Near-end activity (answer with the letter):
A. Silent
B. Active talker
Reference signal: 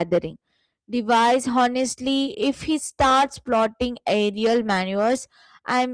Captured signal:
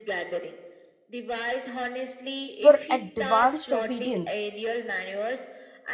B